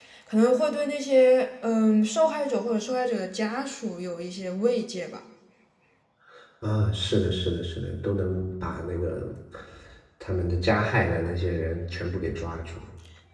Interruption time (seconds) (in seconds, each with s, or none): none